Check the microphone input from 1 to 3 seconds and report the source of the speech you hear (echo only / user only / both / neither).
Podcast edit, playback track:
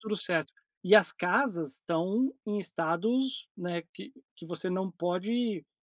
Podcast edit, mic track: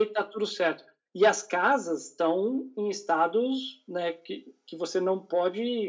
echo only